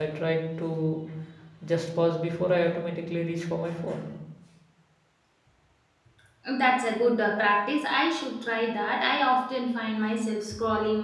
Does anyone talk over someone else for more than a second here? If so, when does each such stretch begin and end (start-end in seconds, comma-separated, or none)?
none